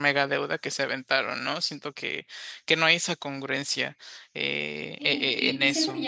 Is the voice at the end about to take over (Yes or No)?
Yes